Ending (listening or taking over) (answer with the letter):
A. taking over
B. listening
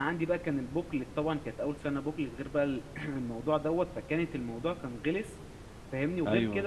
B